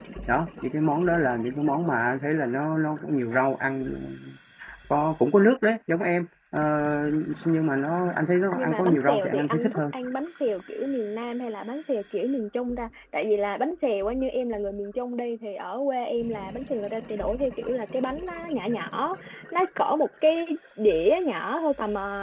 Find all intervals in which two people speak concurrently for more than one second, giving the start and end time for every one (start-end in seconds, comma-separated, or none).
8.5-9.8